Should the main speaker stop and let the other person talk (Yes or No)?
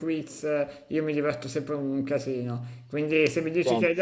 No